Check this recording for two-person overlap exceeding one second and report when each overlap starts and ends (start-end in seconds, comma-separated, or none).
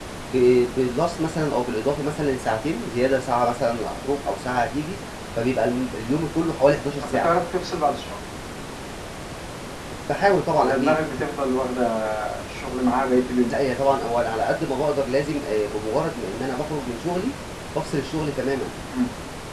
none